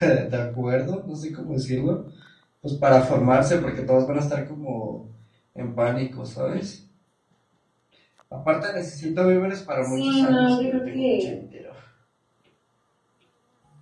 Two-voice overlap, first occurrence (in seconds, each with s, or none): 9.8 s